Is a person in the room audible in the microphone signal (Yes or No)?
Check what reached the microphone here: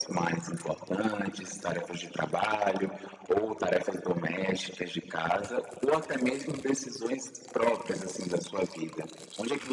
No